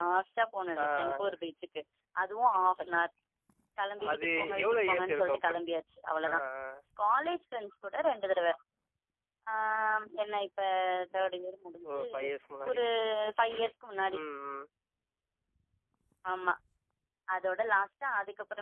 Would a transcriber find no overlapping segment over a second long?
No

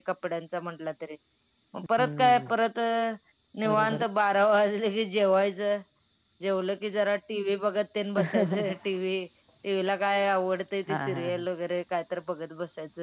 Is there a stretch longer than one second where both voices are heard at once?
No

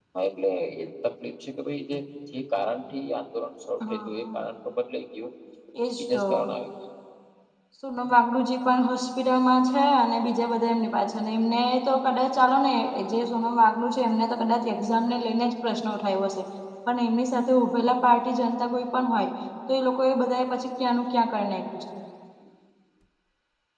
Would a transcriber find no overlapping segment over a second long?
Yes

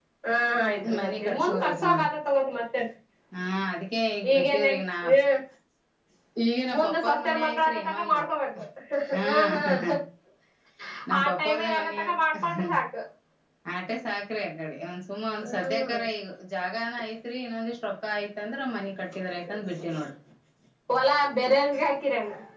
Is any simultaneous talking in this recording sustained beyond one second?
Yes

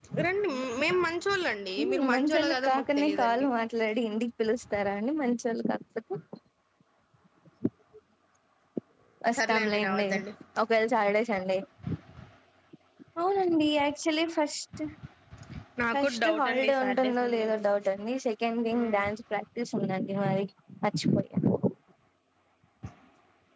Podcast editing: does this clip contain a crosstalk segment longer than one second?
Yes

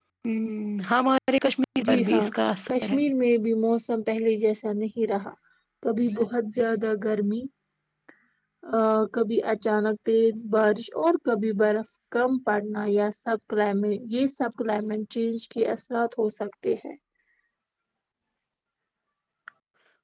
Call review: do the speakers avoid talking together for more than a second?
Yes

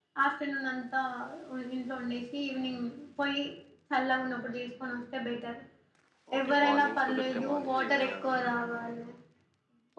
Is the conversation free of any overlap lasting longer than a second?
No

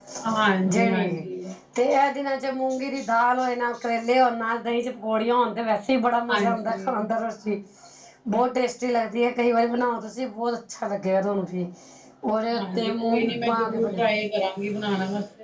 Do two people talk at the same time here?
Yes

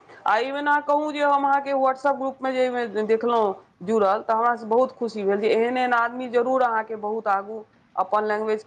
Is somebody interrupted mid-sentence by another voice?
No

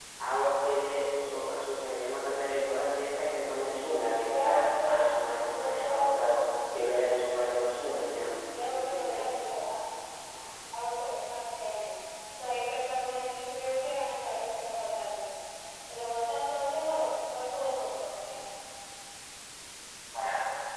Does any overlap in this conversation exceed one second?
Yes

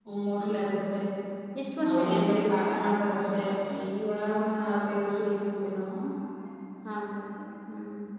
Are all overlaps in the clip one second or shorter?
No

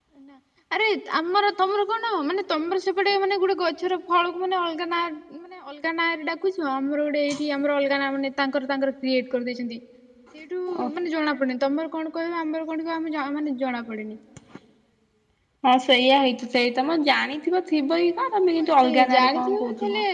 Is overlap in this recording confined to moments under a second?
No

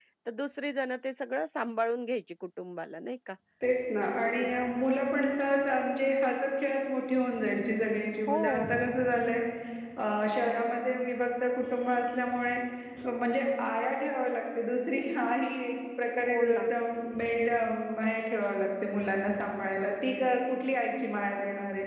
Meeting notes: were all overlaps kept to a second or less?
Yes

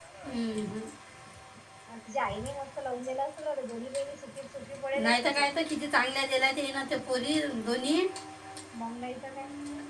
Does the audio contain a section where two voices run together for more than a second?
No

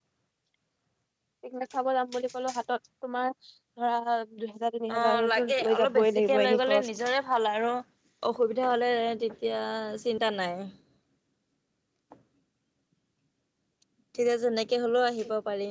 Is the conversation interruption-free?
No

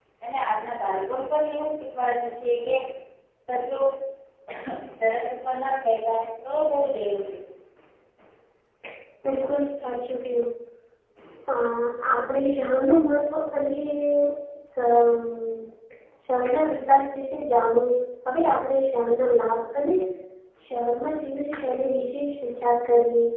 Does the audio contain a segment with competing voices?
No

